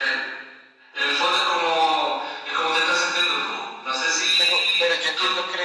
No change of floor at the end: No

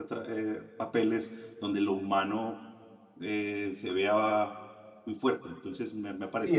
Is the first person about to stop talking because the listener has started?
Yes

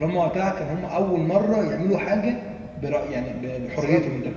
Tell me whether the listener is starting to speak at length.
Yes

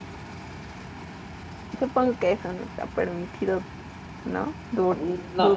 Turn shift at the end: Yes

